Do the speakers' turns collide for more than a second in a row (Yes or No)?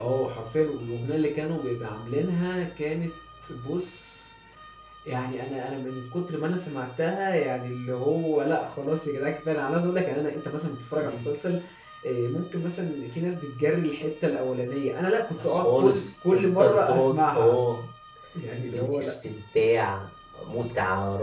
Yes